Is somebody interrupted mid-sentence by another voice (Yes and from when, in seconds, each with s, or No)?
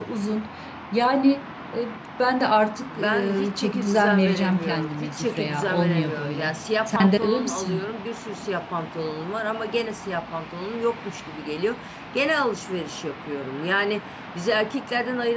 Yes, from 2.9 s